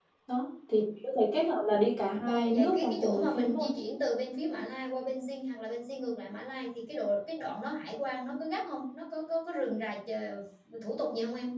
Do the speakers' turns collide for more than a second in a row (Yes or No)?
Yes